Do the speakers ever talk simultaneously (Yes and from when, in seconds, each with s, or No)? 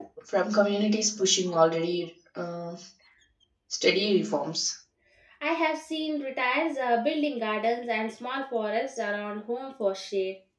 No